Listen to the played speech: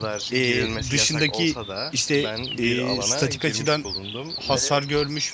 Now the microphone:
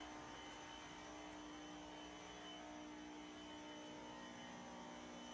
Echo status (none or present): none